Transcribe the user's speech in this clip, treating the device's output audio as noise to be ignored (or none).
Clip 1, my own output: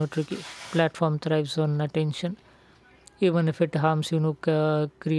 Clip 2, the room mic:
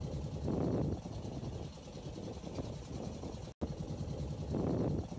none